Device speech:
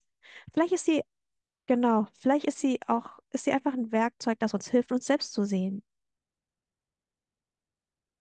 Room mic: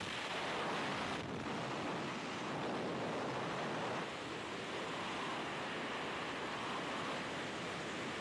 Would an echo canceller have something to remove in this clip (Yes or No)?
No